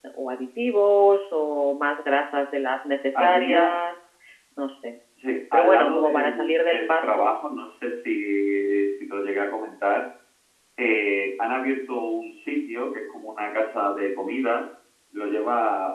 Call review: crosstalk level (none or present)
present